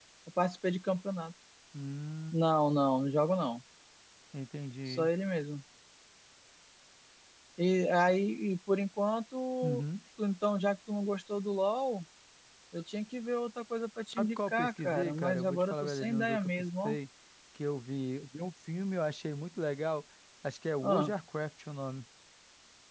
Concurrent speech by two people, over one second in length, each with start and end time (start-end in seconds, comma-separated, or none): 14.1-17.0